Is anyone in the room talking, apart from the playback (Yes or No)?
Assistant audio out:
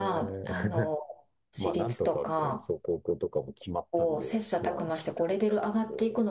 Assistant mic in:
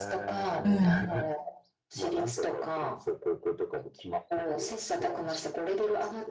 Yes